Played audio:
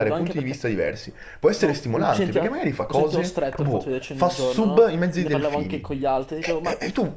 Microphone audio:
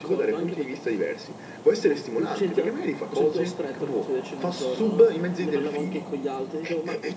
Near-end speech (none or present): none